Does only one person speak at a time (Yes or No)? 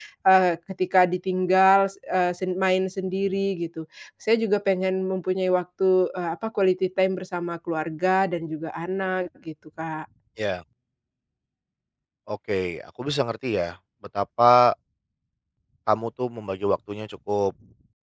Yes